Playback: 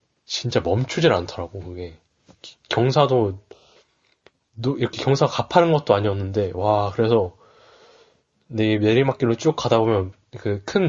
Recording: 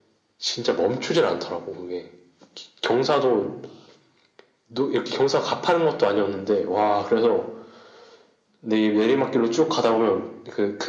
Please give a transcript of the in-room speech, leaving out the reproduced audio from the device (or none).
none